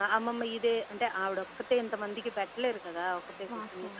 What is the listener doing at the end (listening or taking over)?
listening